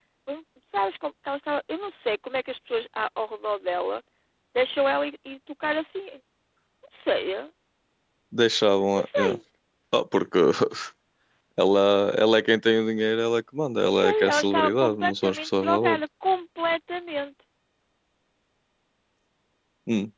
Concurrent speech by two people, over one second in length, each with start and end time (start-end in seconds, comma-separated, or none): 13.8-16.0